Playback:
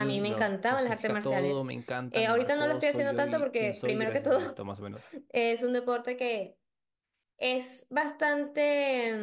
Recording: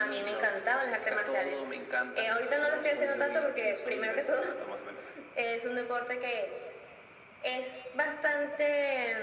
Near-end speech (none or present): none